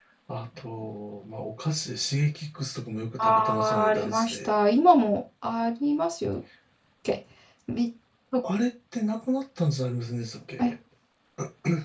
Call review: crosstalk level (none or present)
present